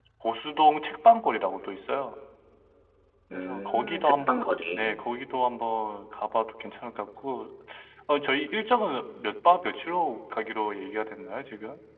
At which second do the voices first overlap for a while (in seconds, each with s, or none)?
3.3 s